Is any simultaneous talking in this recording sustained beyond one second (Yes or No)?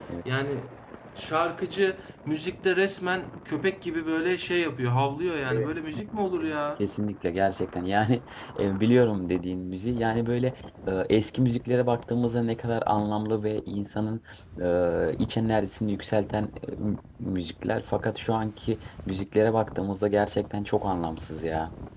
No